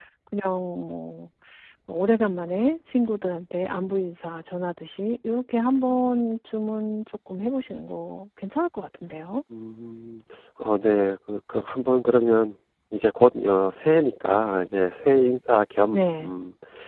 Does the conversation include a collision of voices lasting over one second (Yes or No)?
No